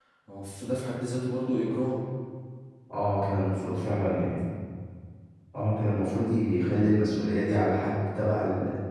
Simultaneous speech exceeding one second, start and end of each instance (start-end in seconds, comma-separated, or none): none